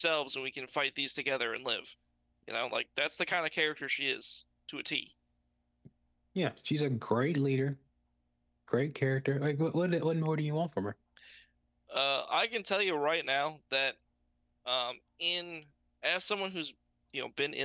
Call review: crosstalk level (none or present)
none